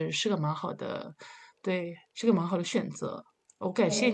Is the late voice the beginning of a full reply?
No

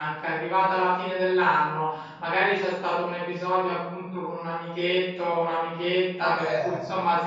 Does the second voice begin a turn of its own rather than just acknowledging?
No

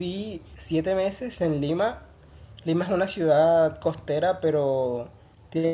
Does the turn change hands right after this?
No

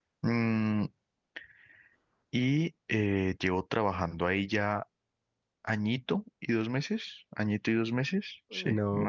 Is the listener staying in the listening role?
No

